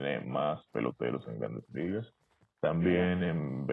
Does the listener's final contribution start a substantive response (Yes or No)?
No